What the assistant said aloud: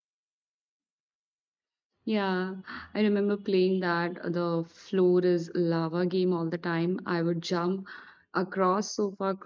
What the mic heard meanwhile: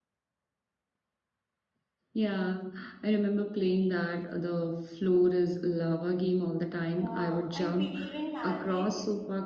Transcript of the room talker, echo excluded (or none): Yeah, and believe in magic.